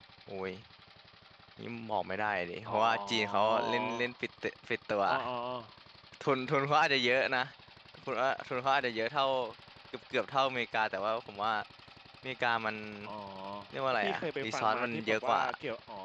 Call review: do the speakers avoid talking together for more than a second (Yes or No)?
No